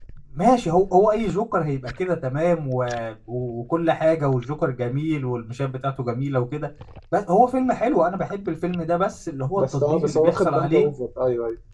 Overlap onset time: 9.5 s

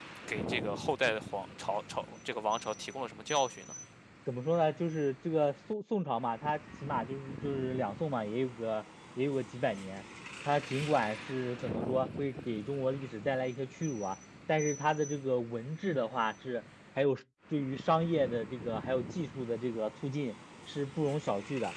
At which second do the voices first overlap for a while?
none

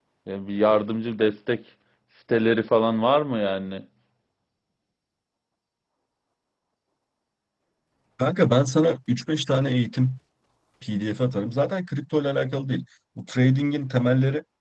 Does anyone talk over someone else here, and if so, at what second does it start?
none

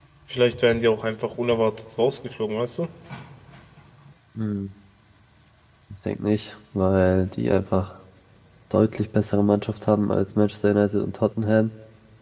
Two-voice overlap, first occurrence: none

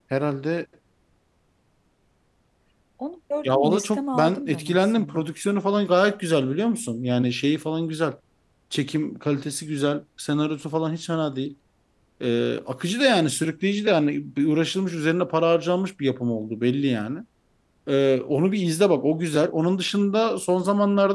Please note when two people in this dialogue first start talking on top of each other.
3.4 s

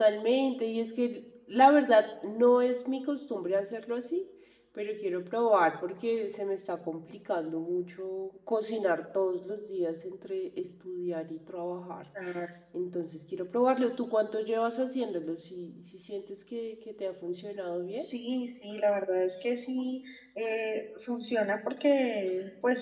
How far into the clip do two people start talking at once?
none

